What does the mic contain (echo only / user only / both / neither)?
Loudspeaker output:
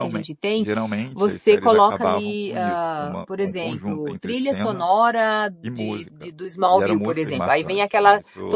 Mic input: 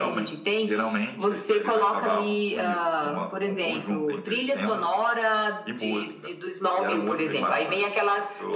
echo only